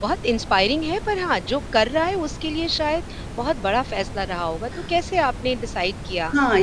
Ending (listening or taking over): taking over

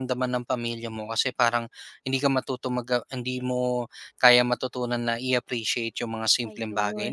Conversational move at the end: listening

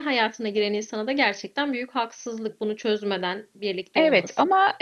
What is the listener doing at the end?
taking over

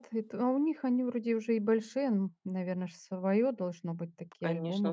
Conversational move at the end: taking over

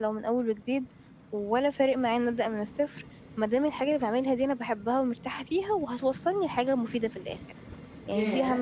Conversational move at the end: taking over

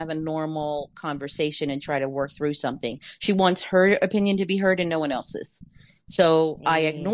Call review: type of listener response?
listening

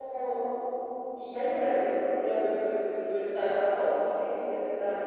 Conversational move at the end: listening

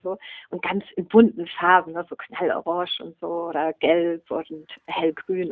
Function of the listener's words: listening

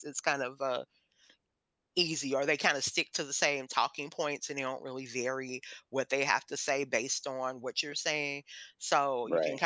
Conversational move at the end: listening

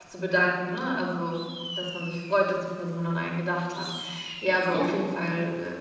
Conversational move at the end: listening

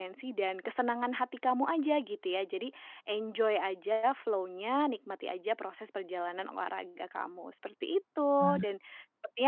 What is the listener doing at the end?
listening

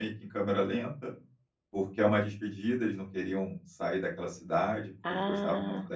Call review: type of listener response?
listening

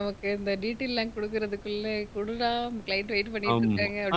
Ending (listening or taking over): taking over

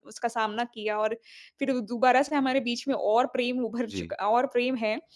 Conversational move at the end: listening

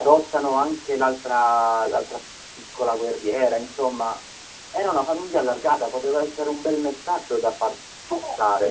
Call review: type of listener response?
taking over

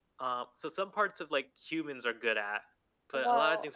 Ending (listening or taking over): listening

